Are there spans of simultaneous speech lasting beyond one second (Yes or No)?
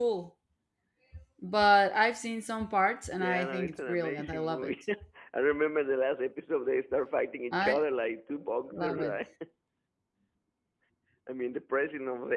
Yes